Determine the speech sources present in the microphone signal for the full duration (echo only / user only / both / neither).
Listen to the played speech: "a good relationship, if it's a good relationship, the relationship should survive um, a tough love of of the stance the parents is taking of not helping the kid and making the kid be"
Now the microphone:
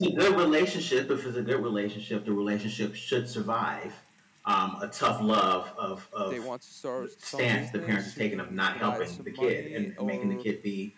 both